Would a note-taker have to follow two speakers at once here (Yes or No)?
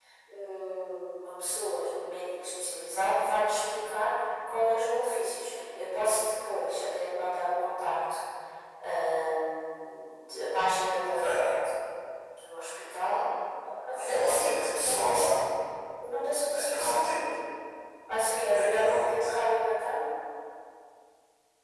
Yes